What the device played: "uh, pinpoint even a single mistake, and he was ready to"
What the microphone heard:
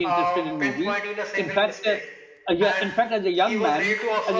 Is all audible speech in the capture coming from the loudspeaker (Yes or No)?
No